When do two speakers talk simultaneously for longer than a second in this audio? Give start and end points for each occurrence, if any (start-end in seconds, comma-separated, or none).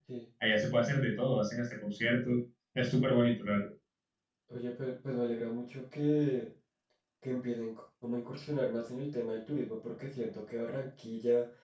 none